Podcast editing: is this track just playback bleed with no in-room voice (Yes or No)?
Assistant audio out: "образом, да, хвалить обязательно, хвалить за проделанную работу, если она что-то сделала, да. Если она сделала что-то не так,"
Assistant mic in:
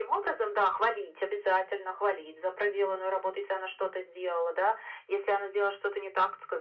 Yes